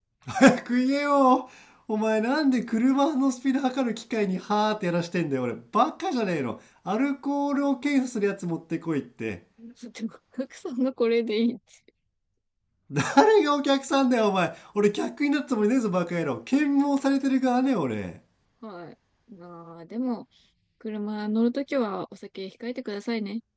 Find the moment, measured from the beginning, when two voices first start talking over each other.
none

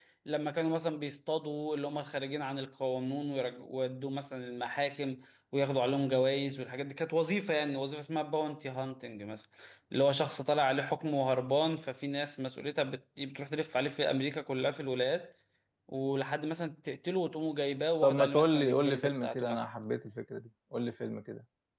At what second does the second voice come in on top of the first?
18 s

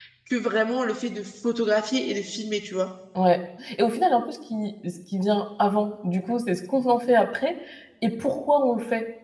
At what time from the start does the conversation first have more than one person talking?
none

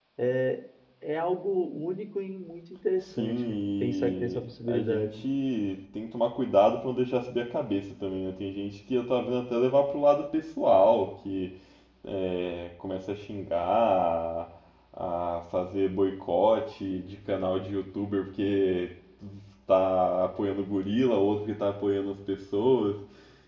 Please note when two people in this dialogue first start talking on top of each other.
3 s

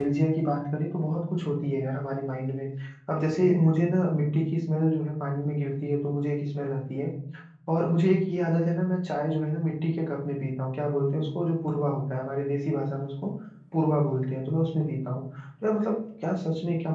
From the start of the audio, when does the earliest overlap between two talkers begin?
none

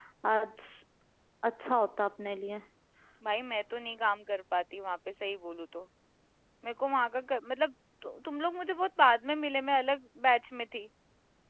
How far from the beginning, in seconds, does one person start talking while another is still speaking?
none

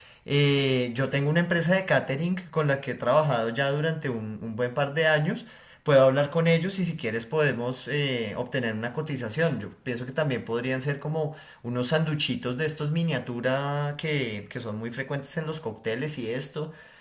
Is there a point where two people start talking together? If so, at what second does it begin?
none

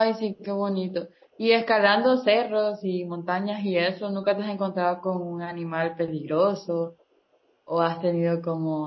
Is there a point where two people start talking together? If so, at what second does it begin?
none

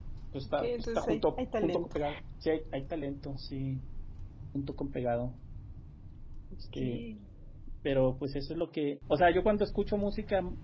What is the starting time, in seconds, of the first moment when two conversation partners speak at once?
1 s

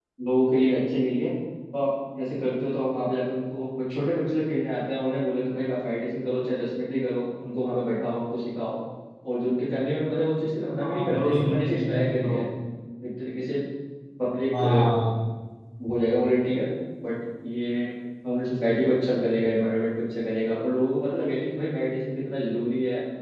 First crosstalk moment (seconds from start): 11 s

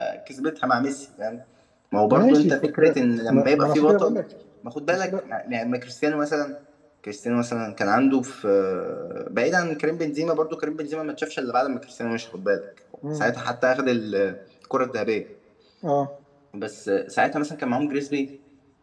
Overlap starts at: 2 s

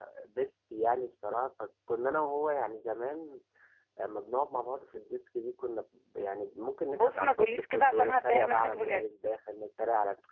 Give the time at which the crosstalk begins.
7 s

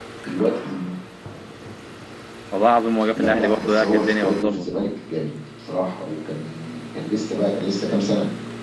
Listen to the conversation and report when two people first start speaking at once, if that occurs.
3 s

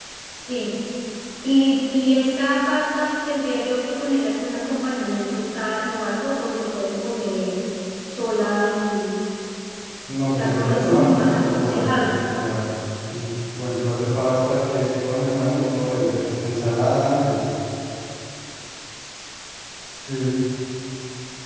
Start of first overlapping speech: 10 s

